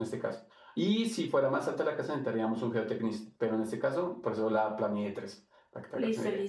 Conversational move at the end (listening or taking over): taking over